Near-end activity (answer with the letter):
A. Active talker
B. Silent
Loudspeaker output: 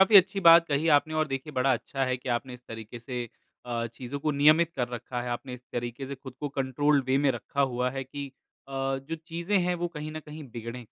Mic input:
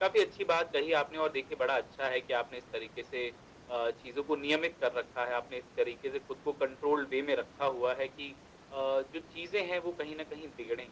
B